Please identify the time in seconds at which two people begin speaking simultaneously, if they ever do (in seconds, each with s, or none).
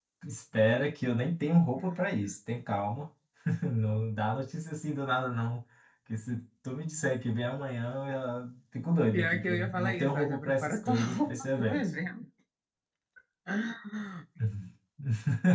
9.1 s